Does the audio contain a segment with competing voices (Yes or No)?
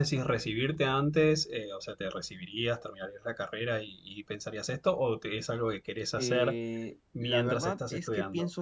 Yes